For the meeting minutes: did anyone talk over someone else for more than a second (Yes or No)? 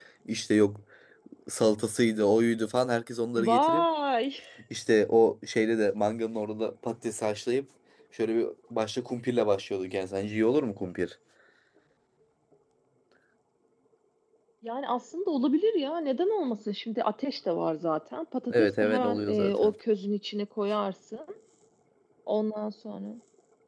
Yes